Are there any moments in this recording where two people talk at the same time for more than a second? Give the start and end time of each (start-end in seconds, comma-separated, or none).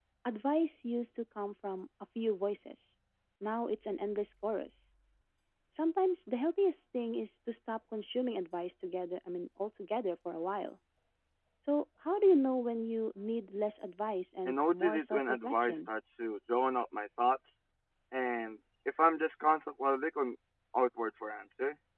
14.4-15.9